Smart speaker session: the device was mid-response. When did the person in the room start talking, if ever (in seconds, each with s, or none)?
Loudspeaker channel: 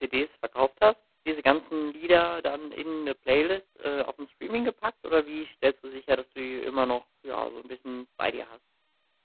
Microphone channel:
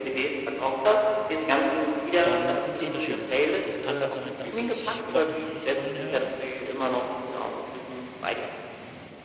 2.2 s